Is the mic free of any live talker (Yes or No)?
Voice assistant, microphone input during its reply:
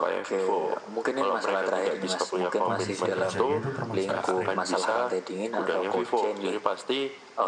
No